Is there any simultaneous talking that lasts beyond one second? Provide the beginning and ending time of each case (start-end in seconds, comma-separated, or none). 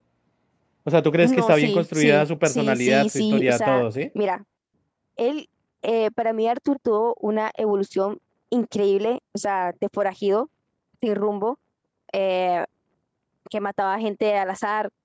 1.2-3.8